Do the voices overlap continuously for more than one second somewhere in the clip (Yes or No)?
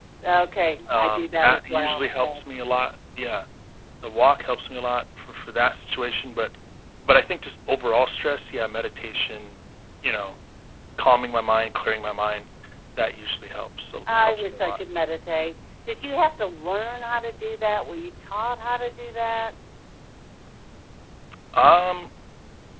Yes